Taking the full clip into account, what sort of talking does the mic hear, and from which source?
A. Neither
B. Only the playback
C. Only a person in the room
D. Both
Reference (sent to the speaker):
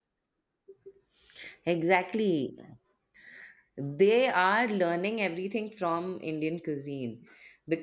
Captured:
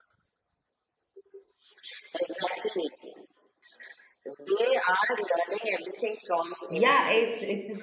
D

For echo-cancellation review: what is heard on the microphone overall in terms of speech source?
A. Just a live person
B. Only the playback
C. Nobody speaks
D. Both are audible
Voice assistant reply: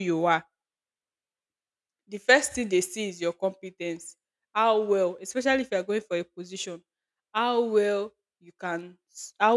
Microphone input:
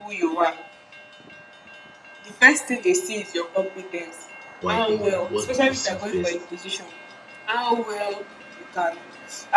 D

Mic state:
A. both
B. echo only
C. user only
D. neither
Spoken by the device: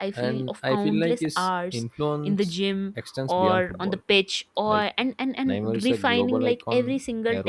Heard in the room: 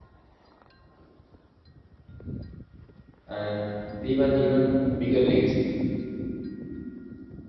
C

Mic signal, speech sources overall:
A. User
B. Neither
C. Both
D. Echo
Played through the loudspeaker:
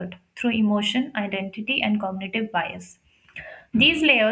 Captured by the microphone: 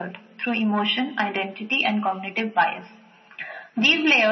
D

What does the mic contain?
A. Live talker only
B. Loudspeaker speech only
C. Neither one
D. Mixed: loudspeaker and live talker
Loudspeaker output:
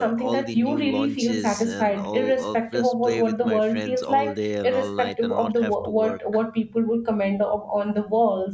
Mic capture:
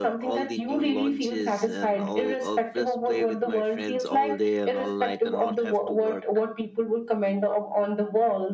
B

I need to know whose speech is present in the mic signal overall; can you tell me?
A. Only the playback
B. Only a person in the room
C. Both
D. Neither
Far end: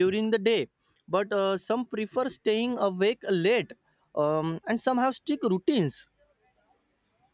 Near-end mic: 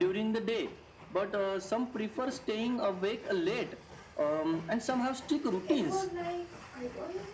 C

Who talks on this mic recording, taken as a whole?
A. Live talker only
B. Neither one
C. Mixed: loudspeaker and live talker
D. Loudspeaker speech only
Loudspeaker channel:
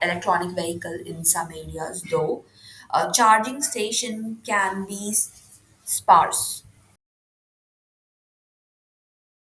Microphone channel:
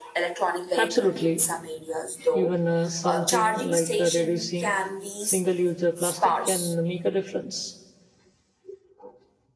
C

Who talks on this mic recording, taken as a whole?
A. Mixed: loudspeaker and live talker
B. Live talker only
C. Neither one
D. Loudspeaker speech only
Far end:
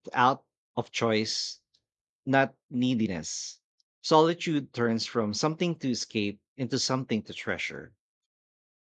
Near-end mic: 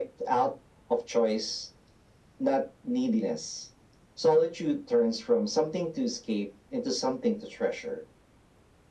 D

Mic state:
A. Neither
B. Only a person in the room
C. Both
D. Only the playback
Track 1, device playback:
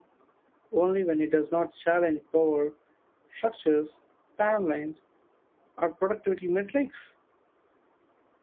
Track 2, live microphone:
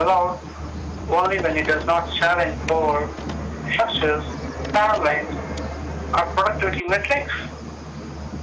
D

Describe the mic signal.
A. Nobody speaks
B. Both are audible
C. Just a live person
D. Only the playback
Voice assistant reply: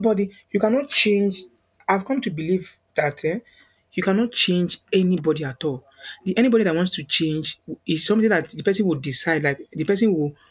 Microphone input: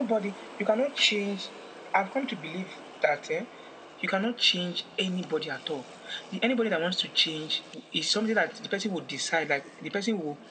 D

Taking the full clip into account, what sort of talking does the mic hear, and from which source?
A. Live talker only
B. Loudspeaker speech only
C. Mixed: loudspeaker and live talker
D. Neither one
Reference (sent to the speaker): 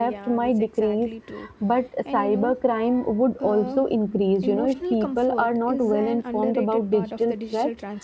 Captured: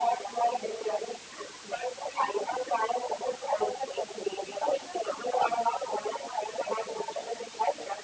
B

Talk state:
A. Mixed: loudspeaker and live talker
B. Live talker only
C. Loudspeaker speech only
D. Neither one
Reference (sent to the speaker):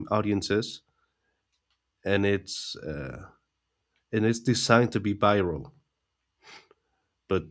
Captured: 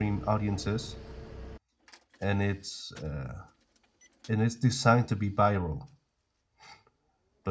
C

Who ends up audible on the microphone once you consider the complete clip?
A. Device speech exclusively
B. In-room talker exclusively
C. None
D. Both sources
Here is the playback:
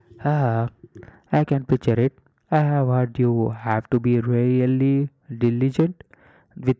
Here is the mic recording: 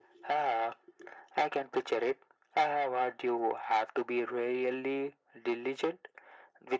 A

